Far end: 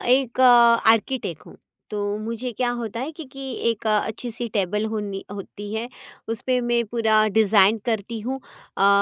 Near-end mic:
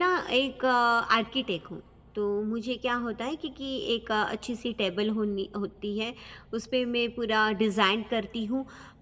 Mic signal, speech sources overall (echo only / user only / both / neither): echo only